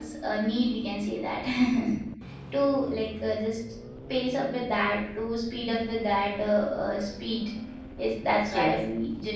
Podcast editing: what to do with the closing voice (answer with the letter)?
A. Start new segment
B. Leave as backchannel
B